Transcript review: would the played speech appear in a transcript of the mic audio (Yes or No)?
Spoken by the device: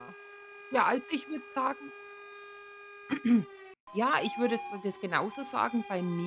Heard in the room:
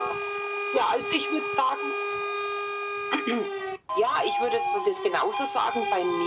Yes